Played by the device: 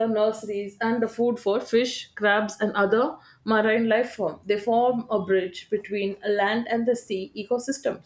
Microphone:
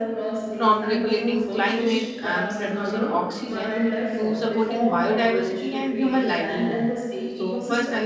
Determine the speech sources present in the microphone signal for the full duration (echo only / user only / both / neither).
both